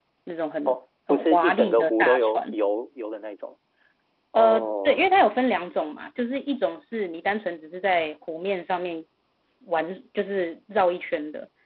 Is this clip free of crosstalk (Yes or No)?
No